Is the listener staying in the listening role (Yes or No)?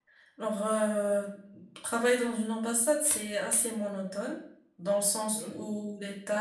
Yes